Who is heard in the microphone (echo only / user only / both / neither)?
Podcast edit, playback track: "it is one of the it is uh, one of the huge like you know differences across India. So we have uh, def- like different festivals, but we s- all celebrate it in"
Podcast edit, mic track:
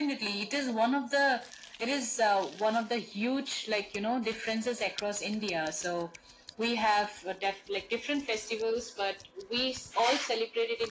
echo only